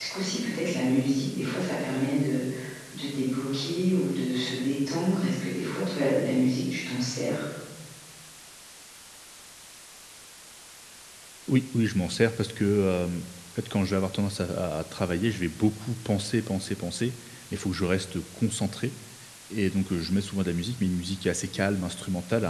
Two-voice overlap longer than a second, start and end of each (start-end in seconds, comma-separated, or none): none